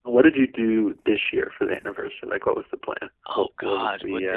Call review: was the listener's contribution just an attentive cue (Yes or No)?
No